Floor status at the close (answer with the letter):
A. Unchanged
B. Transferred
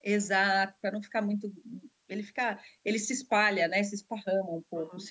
B